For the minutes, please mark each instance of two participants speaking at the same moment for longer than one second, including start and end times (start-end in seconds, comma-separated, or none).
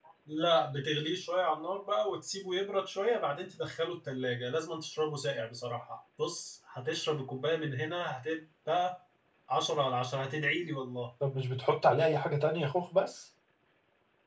none